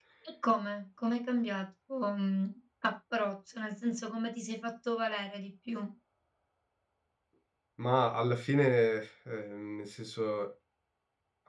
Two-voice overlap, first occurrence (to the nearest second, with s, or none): none